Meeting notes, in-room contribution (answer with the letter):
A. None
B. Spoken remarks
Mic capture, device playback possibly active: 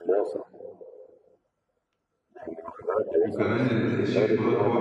B